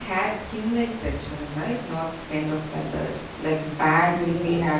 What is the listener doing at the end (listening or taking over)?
listening